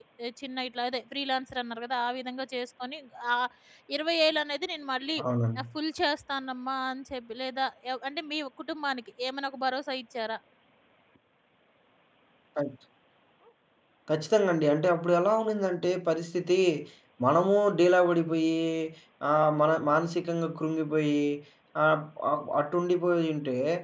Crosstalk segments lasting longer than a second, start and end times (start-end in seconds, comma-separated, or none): none